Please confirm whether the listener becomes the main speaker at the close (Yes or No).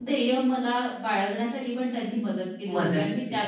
No